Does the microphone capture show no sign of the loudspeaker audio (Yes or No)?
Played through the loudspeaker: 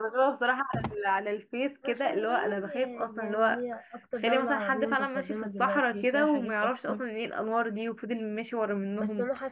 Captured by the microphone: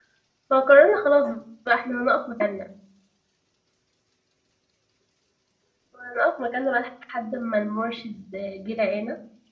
Yes